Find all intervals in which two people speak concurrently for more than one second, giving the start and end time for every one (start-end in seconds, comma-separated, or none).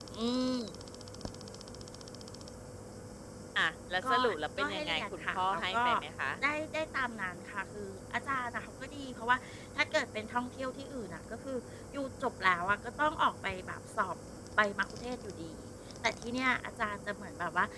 4.6-5.8